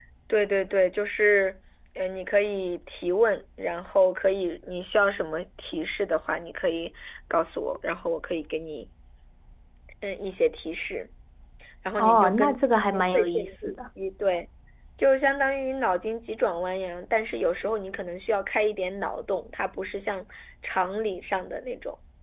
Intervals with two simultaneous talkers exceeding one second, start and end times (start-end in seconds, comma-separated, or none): 12.0-13.9